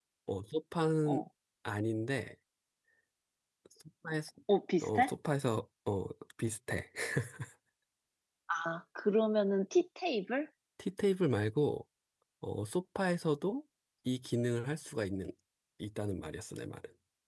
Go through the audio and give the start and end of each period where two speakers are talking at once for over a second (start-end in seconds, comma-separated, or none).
none